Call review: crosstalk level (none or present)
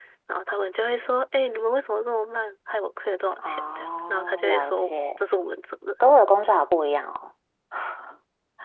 present